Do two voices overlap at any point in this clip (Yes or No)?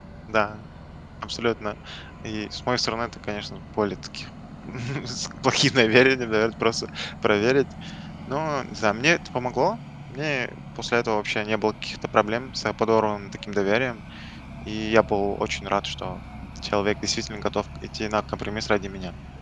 No